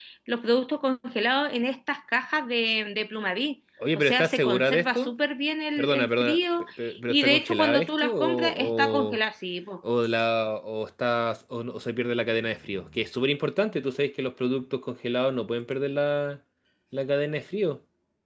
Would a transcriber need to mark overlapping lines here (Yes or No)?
Yes